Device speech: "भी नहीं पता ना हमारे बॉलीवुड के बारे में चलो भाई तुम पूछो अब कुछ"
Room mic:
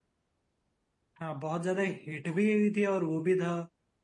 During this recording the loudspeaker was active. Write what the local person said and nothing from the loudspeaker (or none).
हाँ बहुत ज्यादा हिट भी हुई थी और वो भी था